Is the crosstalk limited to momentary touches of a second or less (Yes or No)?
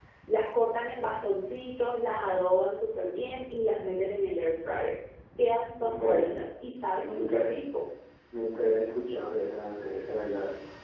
Yes